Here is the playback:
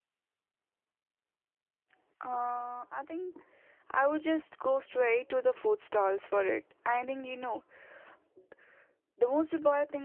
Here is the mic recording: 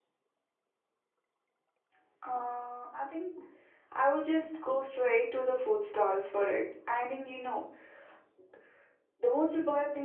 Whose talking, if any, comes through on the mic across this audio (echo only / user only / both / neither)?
echo only